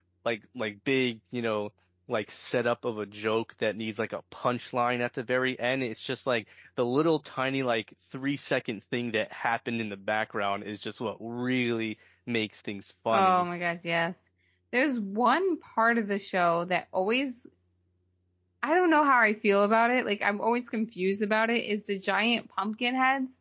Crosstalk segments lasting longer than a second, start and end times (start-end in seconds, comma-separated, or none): none